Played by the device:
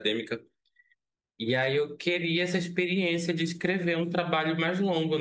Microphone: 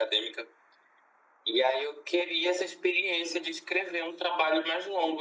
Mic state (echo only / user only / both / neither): echo only